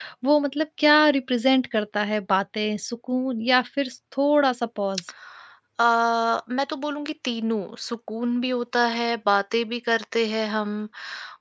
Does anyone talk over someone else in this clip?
No

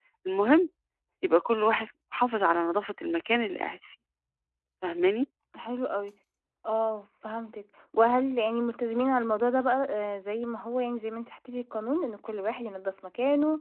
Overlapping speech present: No

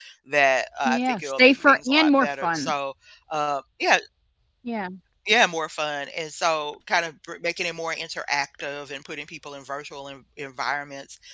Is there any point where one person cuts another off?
Yes, from 0.8 s

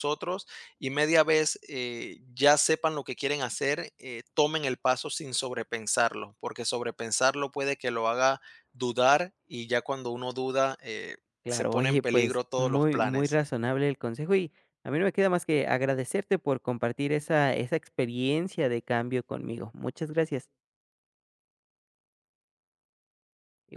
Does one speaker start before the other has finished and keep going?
Yes, from 11.4 s

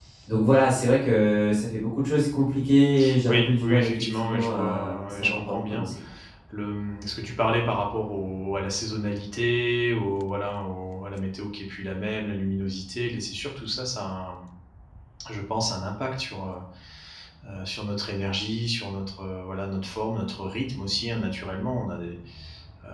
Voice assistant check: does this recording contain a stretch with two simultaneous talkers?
Yes, from 3.2 s

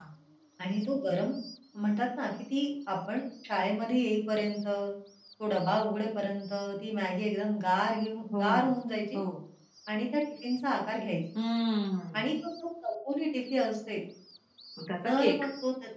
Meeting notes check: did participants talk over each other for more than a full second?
No

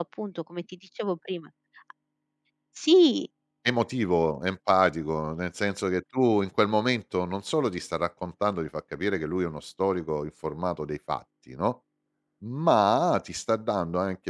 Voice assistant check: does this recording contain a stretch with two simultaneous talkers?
No

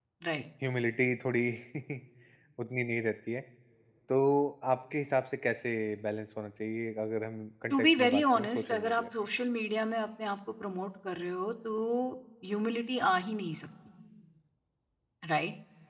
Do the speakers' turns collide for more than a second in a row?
Yes, from 7.7 s

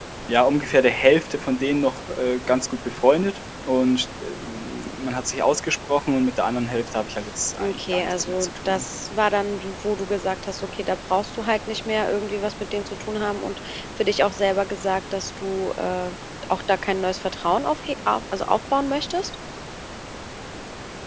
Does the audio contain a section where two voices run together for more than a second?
Yes, from 7.6 s

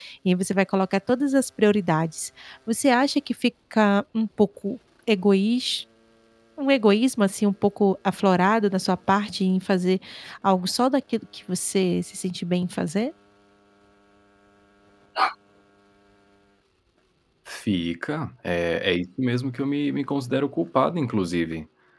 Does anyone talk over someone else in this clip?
No

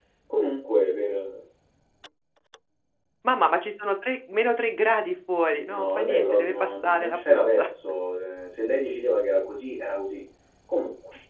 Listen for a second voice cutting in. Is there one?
Yes, from 5.7 s

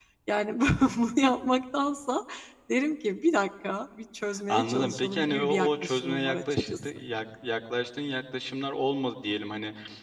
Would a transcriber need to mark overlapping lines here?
Yes, from 4.5 s

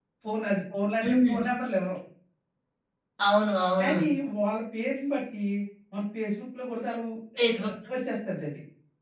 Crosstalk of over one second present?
No

